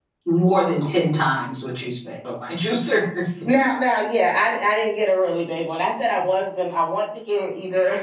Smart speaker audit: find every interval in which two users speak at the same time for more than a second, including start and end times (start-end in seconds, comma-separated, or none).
none